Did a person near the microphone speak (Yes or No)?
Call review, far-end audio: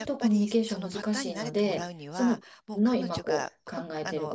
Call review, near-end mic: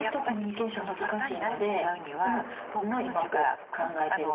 No